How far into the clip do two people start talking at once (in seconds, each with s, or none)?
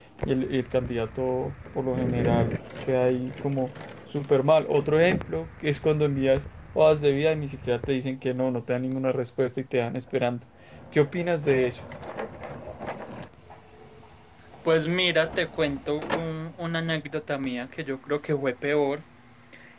none